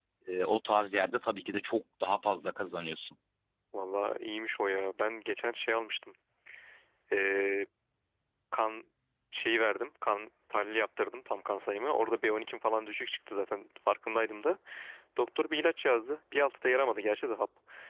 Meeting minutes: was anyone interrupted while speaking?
No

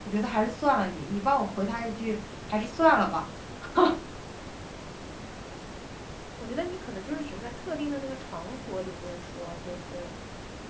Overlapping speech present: No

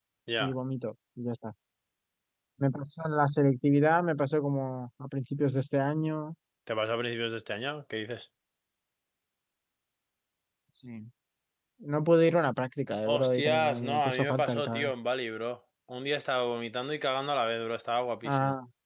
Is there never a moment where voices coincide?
No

